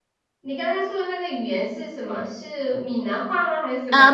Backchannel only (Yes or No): No